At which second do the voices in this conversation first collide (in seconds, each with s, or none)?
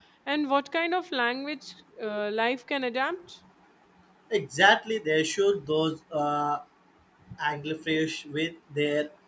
none